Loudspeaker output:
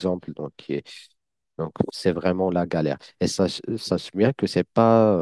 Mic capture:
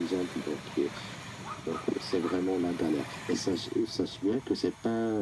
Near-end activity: none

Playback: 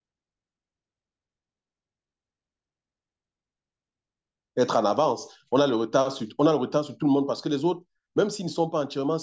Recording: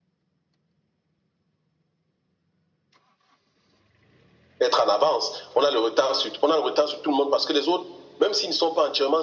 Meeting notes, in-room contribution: none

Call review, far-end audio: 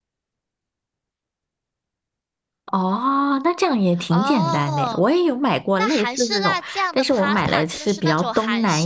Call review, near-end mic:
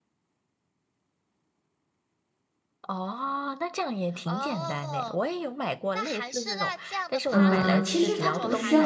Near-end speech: present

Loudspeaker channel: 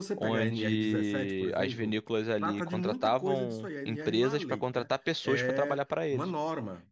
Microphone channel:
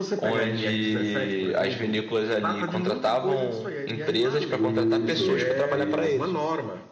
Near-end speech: present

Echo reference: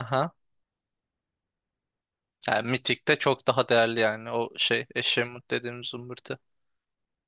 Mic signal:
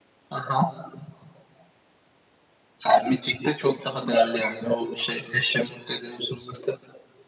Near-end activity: none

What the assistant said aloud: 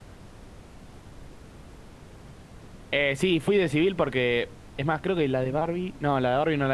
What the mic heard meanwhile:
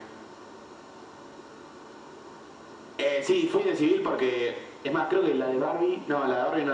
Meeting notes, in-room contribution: none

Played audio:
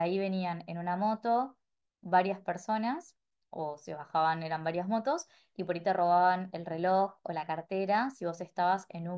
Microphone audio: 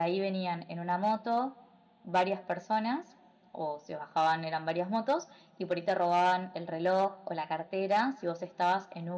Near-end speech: none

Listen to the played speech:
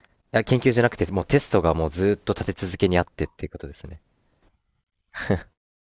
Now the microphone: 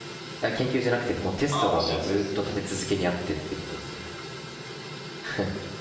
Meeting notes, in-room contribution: present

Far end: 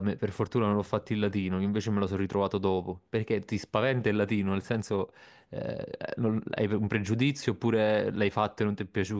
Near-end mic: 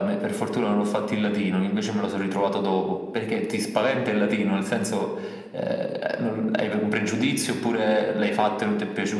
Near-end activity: none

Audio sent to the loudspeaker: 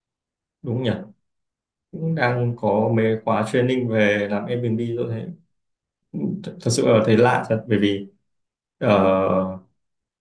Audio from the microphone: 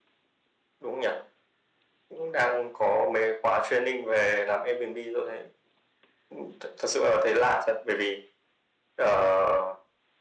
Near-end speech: none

